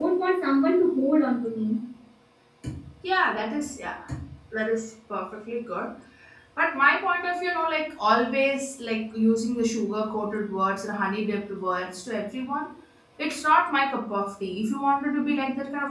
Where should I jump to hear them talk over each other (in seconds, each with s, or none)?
none